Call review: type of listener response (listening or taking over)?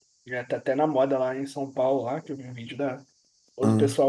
listening